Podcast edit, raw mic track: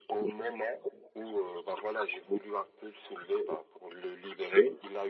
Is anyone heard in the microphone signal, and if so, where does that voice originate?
echo only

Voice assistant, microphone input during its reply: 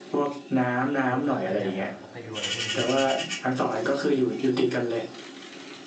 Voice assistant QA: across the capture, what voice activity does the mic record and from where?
both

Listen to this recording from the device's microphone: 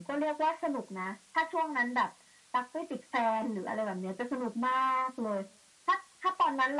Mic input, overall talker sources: echo only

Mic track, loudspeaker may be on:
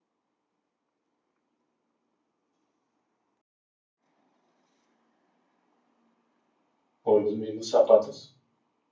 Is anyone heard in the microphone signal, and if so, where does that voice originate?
user only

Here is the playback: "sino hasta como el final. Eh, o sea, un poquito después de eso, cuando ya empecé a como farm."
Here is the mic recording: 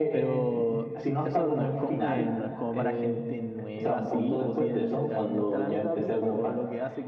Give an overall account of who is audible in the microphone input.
both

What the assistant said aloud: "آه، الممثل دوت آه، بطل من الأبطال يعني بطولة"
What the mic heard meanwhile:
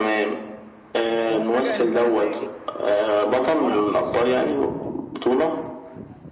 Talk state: both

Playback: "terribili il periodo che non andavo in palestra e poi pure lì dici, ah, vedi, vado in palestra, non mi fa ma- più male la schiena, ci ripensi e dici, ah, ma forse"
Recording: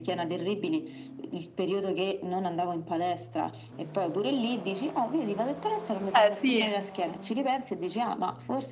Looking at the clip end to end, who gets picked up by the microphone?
both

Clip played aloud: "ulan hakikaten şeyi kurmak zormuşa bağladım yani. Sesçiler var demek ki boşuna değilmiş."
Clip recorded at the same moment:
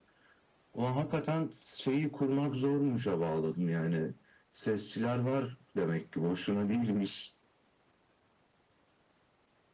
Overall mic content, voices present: echo only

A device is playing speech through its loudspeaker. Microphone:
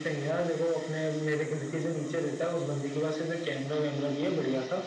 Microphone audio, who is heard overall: echo only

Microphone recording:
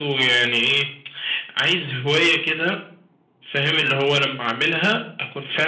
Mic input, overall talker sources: echo only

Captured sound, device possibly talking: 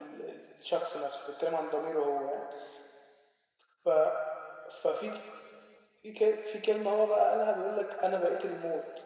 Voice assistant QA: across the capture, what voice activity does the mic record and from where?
echo only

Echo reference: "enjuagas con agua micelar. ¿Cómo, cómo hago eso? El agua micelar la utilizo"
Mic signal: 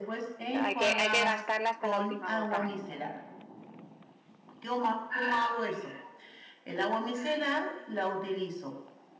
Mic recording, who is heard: both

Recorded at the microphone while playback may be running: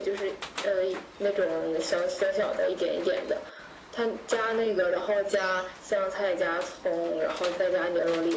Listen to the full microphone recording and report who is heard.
echo only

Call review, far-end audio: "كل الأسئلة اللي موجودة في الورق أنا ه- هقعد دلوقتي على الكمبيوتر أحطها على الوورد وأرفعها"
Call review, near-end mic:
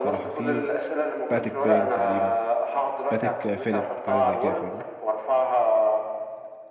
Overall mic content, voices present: both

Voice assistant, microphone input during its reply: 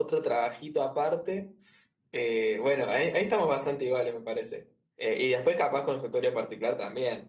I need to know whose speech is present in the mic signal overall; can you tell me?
user only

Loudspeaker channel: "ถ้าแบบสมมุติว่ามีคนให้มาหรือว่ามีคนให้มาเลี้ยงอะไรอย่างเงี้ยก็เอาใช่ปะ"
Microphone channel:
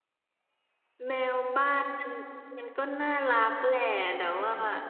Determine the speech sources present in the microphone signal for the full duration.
user only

